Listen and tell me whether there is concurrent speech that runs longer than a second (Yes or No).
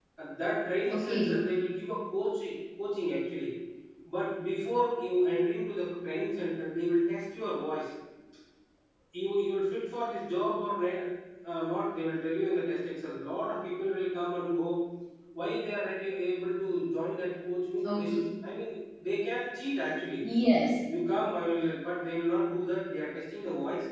No